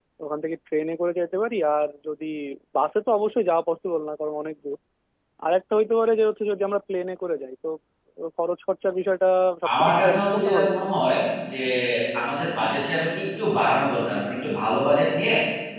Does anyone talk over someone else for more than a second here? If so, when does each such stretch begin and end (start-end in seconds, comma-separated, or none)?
9.8-11.0